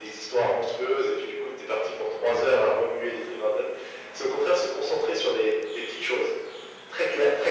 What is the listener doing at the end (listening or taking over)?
listening